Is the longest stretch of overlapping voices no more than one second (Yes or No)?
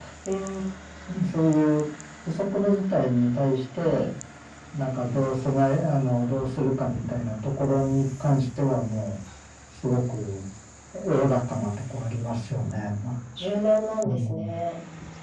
Yes